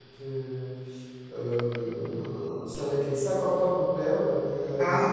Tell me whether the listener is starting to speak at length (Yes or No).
No